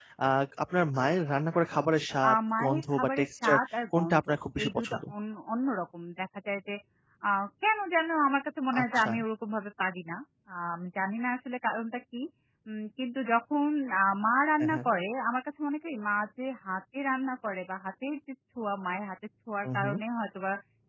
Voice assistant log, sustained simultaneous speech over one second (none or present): present